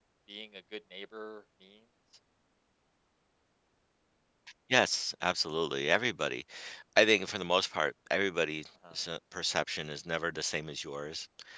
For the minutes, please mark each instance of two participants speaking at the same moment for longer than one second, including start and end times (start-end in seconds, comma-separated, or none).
none